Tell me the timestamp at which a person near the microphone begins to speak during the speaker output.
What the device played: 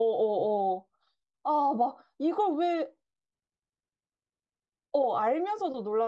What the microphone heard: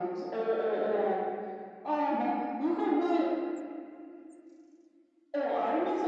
none

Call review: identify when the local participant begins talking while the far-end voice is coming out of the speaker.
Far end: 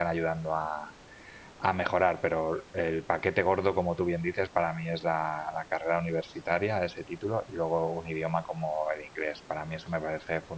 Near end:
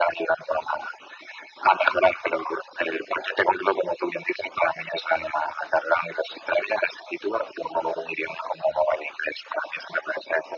none

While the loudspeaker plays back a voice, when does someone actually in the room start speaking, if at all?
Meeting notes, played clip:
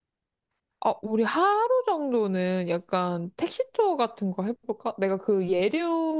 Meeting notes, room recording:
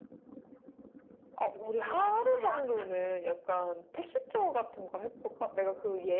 1.5 s

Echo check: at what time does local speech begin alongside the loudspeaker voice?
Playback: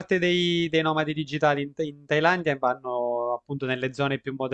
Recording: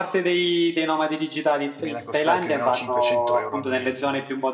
1.7 s

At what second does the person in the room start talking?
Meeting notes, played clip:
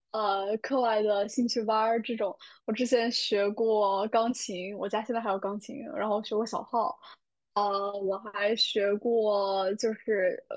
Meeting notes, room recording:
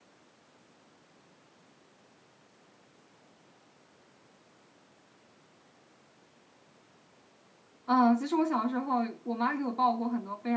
7.8 s

